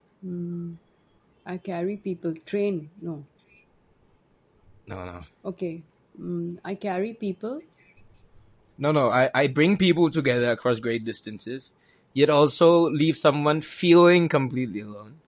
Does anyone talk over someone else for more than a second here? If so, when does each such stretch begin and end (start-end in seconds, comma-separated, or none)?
none